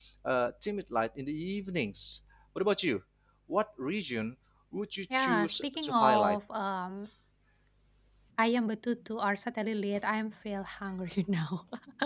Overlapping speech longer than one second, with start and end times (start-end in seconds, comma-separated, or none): 5.2-6.4